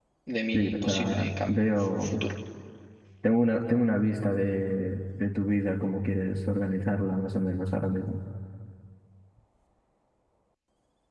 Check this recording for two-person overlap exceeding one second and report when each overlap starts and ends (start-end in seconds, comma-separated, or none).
0.5-2.1